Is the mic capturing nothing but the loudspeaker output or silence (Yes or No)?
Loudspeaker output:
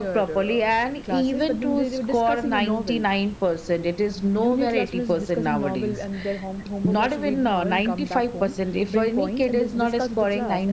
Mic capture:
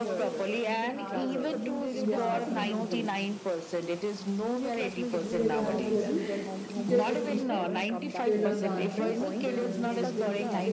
No